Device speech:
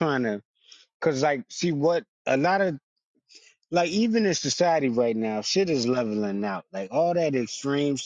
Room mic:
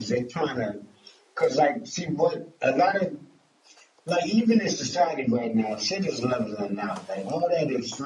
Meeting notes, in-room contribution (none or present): none